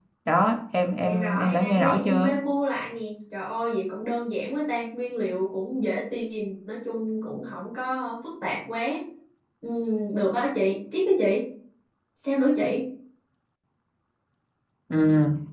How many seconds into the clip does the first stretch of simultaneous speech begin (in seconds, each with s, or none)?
1.0 s